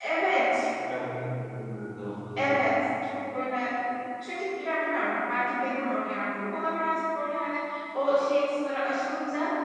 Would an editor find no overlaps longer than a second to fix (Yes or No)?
Yes